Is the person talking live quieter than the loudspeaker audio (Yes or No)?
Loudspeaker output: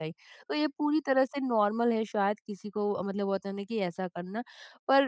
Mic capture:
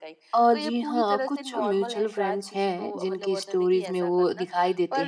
No